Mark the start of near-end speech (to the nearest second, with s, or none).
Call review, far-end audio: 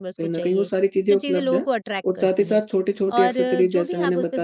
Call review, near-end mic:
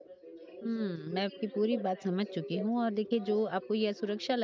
1 s